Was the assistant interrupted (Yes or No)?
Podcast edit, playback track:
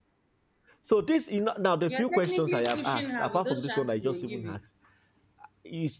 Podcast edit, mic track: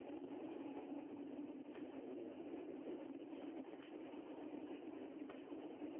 No